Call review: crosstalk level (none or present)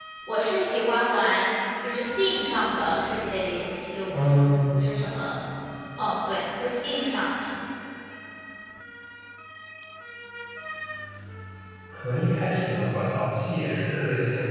none